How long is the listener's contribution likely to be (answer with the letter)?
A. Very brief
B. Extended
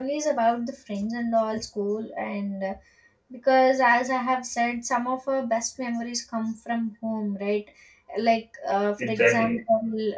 A